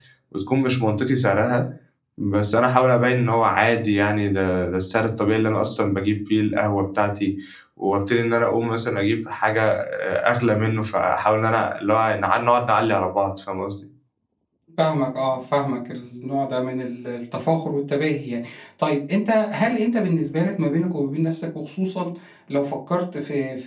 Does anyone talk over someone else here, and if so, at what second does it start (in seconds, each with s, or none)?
none